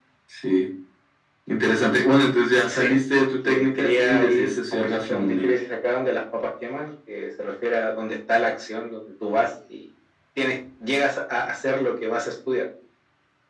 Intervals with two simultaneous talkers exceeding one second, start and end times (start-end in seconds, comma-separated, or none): 2.7-5.5